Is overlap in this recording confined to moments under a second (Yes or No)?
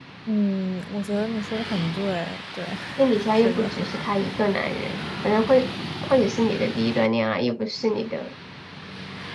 Yes